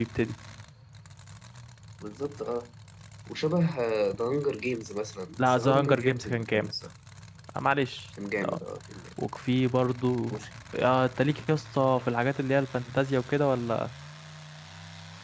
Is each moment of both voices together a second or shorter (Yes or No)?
No